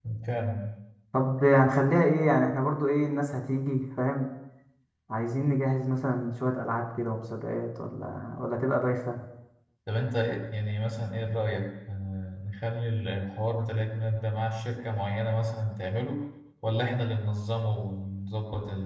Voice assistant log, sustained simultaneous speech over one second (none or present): none